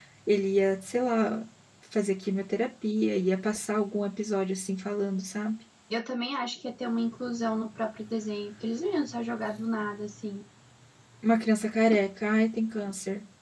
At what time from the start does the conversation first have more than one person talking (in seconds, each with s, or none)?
none